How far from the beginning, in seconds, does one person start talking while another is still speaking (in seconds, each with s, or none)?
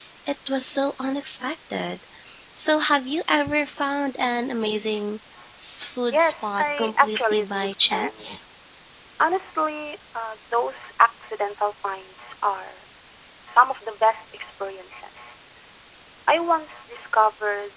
6.1 s